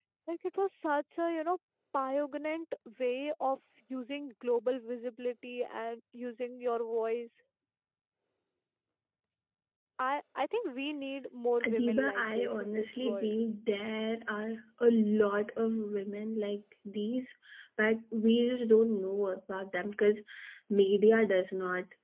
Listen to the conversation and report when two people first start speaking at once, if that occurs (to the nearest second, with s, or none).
12 s